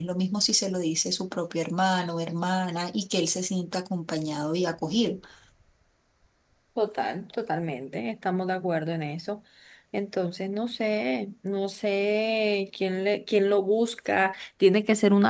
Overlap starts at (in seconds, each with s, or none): none